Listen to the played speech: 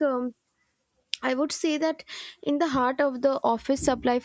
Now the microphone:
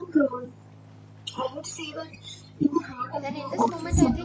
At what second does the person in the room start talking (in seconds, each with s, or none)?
3.2 s